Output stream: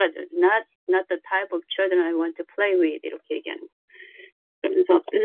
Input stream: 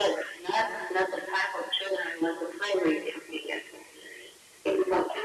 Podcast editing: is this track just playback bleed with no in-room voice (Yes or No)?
Yes